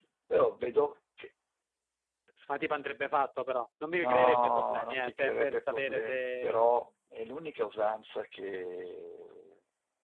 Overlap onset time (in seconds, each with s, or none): 3.9 s